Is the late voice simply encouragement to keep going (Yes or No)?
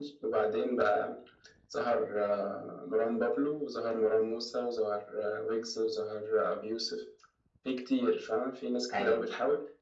Yes